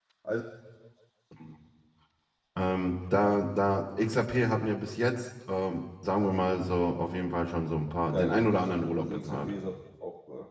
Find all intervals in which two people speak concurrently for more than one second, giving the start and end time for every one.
8.1-9.5

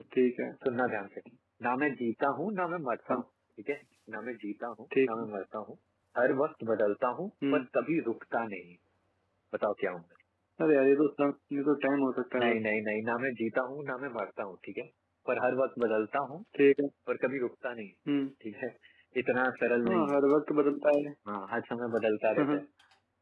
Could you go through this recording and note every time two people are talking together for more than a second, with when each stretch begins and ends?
none

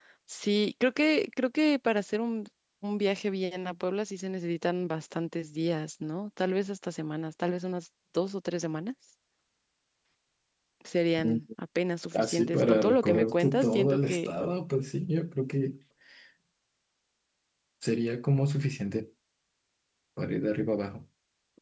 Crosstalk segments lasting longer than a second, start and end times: 12.1-14.3

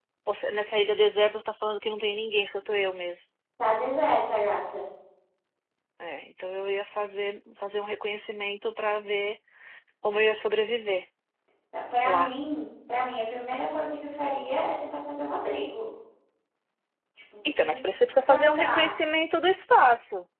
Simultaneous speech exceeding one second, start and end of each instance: 17.5-18.9

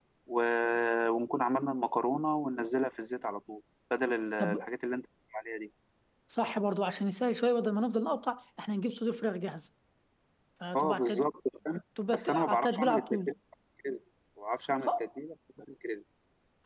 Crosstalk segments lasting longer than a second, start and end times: 12.1-13.3

